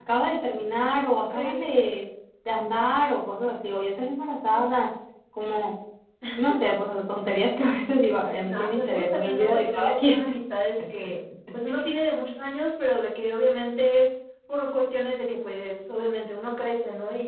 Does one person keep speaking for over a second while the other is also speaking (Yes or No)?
Yes